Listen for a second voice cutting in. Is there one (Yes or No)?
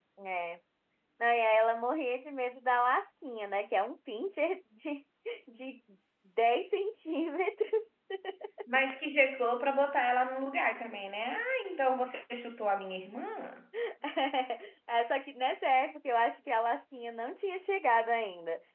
No